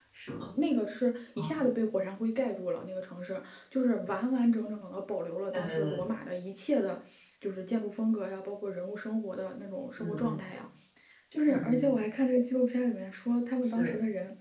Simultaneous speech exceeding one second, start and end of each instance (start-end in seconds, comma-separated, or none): none